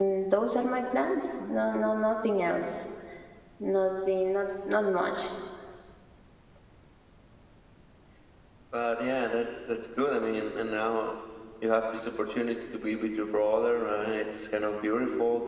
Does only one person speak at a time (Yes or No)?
Yes